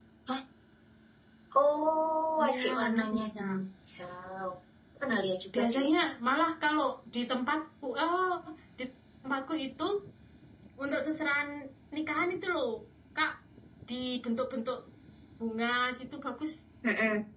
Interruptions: present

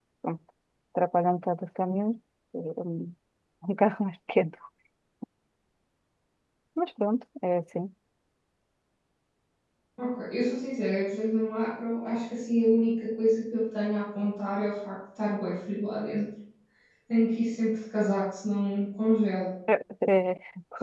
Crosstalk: none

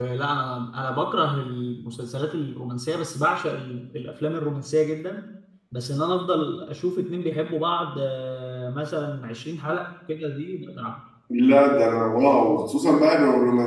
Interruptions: none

